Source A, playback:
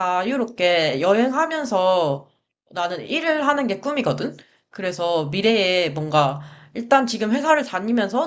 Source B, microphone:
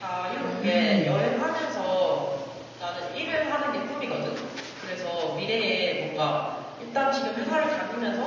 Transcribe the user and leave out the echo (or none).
음,